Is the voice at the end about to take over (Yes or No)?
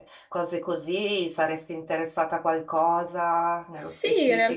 Yes